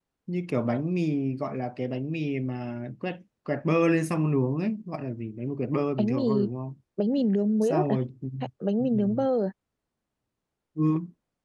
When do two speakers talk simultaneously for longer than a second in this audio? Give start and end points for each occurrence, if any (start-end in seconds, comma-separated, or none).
none